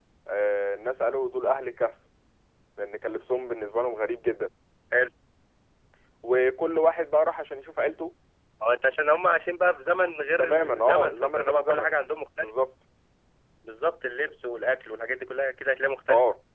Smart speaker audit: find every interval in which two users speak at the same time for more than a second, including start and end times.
10.4-11.9

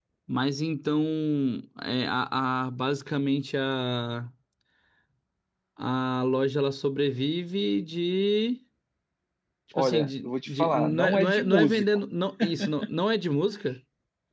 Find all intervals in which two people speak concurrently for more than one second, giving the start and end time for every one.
9.8-11.8

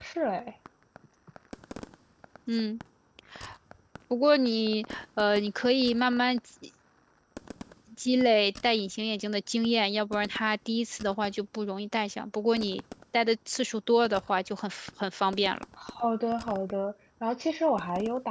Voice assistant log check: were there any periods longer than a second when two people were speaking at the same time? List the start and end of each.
none

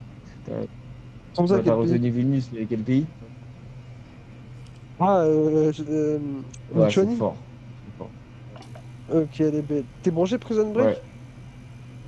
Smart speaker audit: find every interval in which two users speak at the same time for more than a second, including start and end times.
none

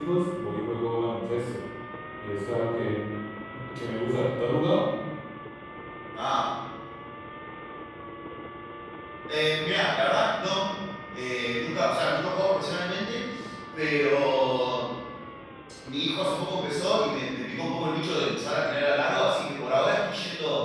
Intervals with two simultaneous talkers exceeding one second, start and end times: none

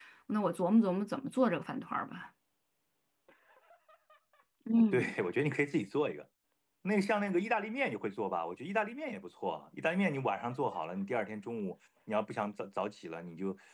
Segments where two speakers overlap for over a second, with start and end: none

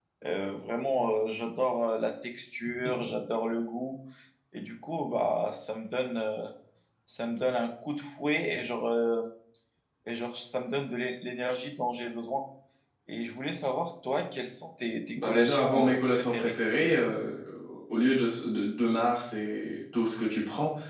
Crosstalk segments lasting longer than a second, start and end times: 15.2-16.5

